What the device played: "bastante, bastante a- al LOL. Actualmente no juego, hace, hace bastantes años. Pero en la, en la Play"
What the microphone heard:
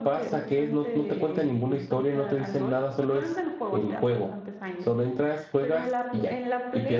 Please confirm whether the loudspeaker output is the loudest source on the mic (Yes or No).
No